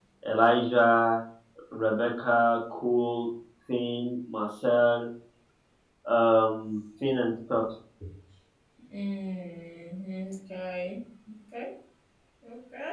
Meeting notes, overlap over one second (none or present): none